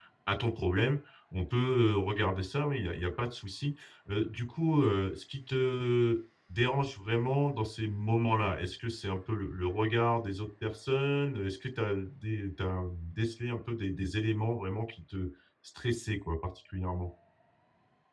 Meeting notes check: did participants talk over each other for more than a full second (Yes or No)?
No